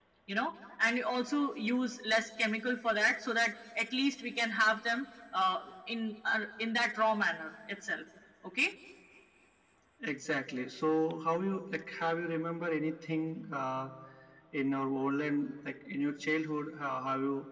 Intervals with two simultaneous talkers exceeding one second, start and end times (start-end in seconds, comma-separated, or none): none